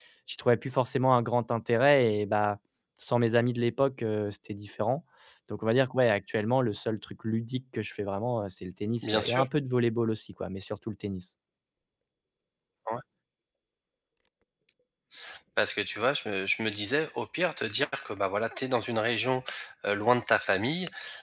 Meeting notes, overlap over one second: none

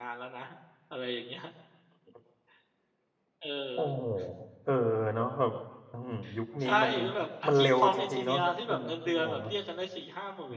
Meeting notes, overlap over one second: present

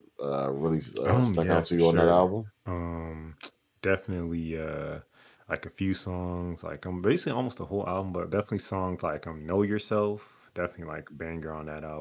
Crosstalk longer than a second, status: present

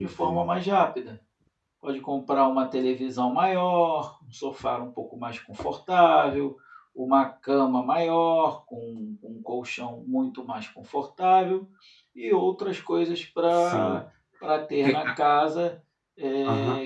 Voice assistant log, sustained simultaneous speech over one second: none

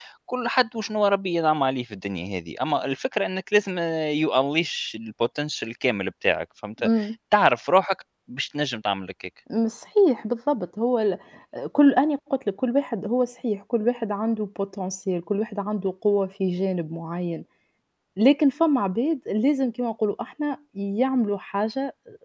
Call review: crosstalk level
none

